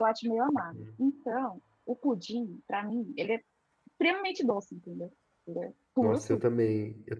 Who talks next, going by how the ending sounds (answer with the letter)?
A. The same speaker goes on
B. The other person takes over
B